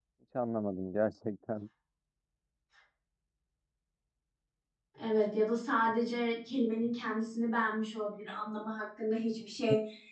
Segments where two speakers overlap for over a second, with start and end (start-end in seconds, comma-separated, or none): none